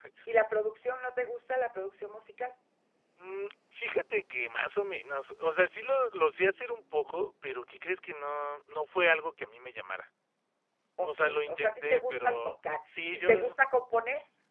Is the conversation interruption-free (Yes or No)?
No